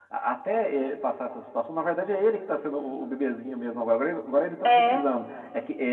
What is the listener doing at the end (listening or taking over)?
listening